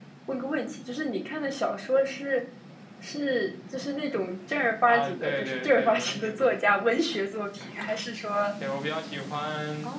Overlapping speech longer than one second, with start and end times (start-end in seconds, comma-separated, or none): 4.9-6.7